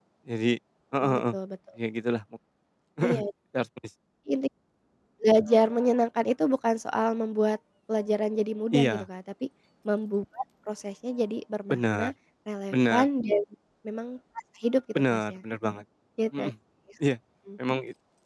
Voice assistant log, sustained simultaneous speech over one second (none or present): none